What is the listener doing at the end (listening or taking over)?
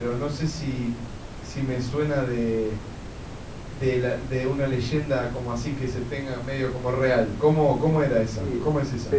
taking over